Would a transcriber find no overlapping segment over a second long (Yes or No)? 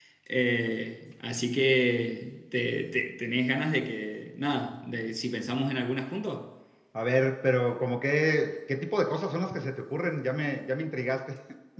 Yes